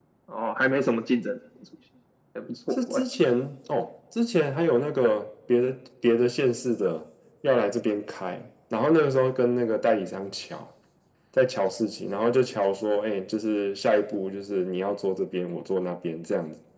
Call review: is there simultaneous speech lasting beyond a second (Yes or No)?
No